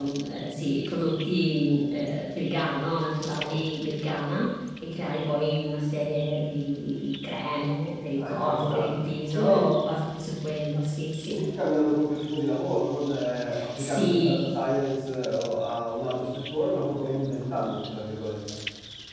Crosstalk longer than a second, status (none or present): present